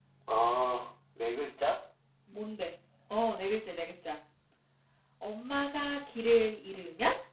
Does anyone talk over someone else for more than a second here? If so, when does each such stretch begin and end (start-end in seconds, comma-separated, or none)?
none